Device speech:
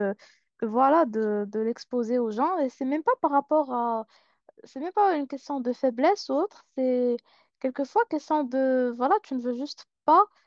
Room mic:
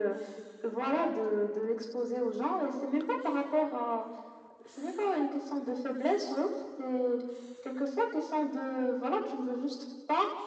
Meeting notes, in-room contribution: none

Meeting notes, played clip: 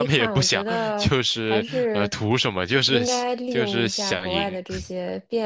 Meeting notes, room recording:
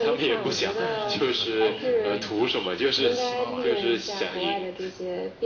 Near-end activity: present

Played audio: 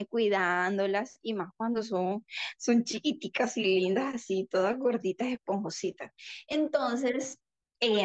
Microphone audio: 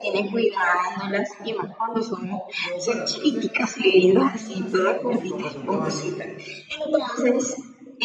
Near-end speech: present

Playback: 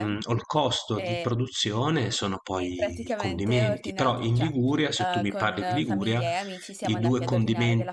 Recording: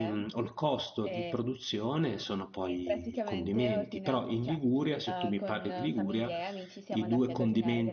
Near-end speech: none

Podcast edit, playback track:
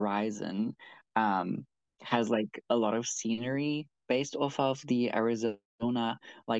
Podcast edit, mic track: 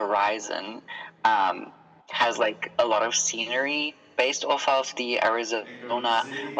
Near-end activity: present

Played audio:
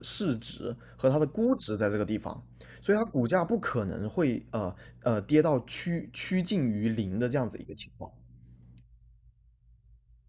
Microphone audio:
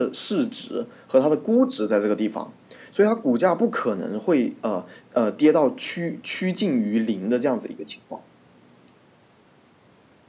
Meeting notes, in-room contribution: none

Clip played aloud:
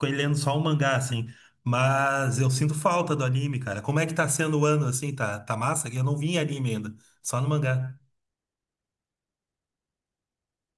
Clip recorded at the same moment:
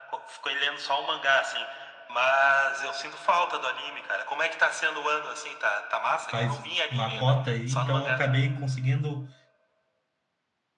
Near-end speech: present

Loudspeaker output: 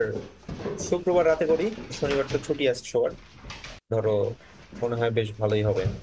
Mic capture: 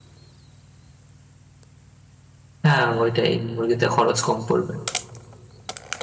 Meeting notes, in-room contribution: present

